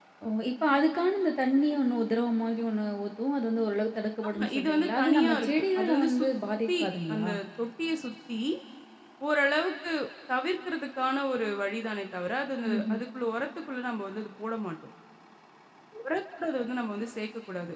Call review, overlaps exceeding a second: present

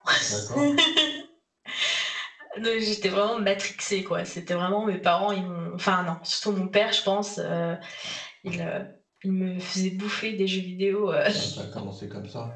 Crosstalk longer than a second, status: none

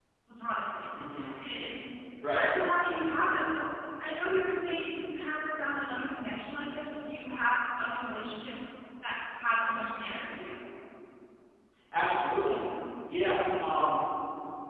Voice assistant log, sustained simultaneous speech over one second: none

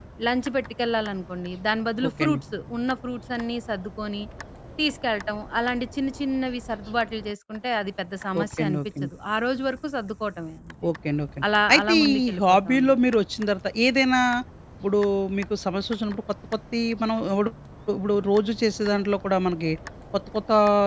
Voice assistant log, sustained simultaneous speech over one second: present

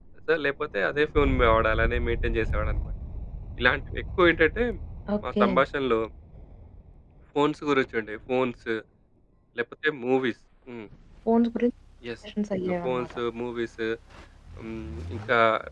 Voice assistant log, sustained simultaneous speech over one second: none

